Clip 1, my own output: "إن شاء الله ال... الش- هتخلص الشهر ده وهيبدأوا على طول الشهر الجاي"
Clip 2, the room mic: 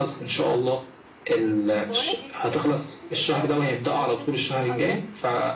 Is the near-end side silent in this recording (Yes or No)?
No